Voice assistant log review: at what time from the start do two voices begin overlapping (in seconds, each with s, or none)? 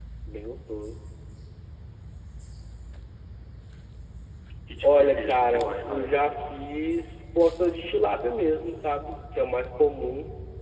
4.8 s